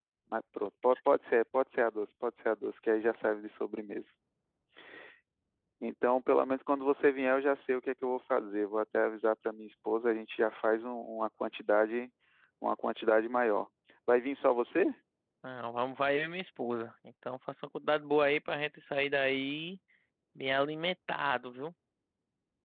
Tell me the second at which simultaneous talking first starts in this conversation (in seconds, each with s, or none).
none